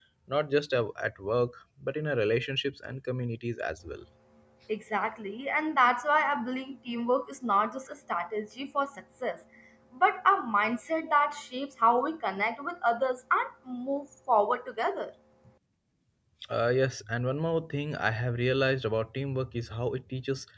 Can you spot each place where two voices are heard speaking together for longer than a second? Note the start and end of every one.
none

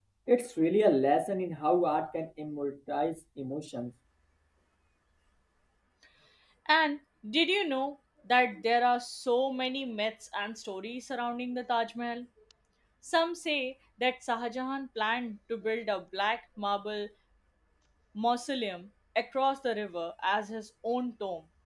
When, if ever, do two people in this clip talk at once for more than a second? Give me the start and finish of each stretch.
none

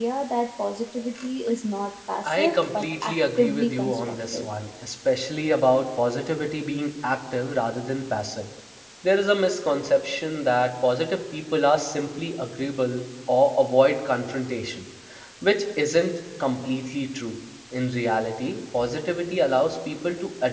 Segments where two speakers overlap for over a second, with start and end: 2.2-4.5

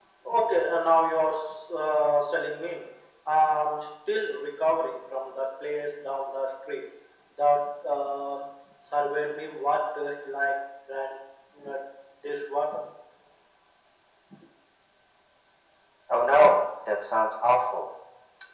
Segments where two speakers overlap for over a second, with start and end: none

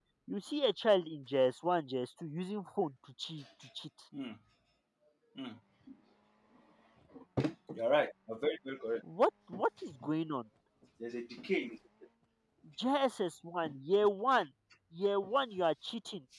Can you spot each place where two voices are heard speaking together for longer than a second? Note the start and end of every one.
none

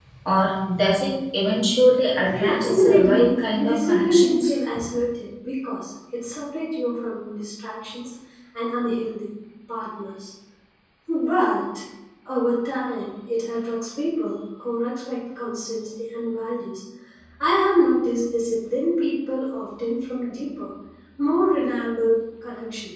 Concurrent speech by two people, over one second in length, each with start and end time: 2.3-4.5

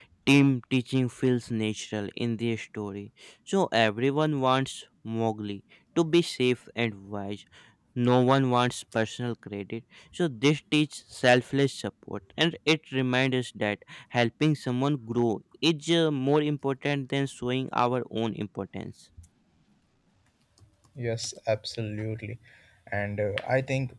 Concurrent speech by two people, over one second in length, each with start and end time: none

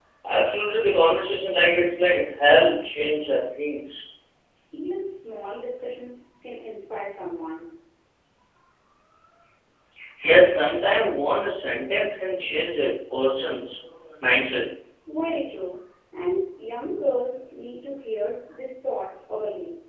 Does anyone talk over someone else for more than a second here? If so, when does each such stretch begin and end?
none

